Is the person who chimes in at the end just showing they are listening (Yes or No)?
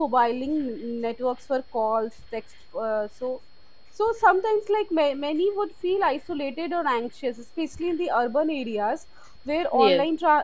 Yes